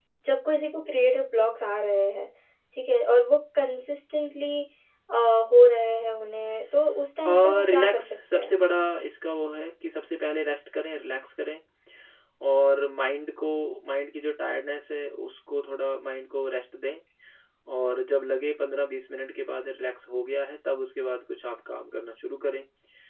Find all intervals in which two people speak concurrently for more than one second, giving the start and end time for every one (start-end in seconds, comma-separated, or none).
7.3-8.5